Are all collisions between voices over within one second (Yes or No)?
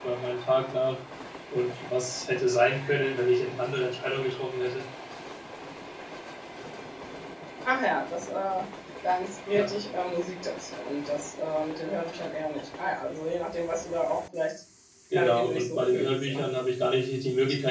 No